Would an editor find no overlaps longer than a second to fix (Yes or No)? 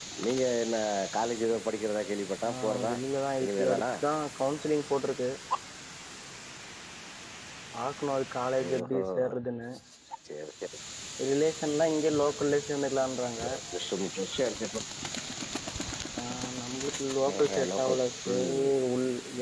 No